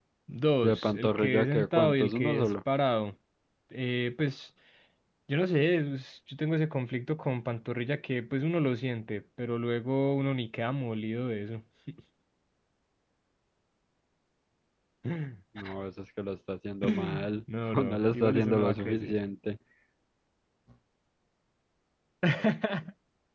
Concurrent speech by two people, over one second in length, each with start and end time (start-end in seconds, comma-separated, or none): 0.6-2.5, 17.7-19.2